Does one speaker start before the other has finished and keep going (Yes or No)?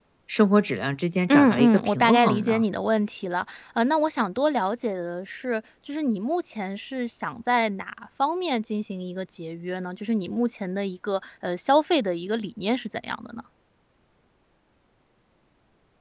Yes